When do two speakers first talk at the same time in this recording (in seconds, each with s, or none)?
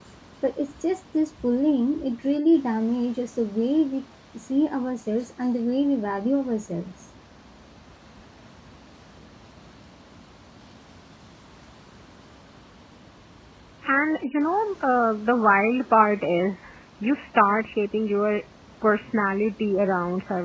none